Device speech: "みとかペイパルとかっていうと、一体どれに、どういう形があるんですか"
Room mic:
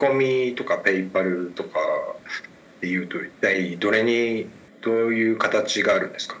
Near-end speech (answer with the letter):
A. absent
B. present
A